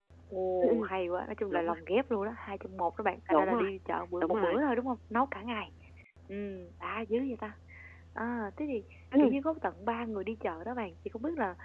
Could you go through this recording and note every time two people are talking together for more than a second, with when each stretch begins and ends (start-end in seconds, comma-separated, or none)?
none